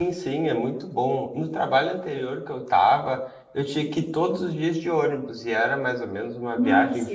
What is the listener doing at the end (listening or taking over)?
listening